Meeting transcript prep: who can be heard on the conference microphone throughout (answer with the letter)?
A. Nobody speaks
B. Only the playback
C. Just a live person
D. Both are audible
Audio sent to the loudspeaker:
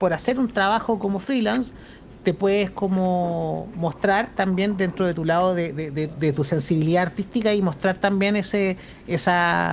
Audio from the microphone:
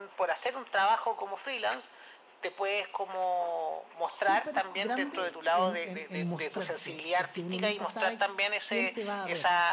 D